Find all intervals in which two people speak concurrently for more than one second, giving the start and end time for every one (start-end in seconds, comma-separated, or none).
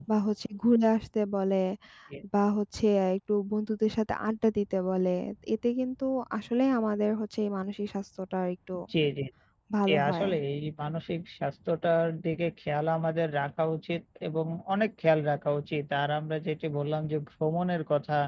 none